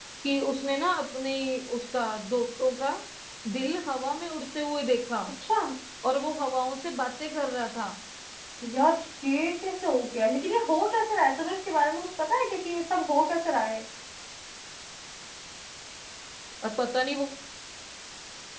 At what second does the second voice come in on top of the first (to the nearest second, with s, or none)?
none